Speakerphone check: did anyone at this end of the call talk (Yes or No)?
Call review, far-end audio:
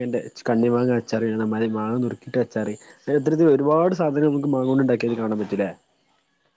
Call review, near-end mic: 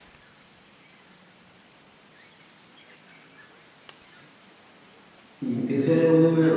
Yes